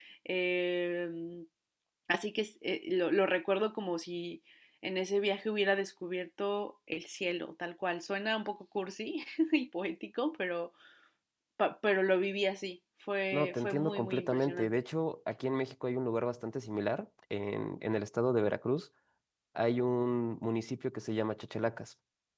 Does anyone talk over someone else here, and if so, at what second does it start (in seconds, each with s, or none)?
13.3 s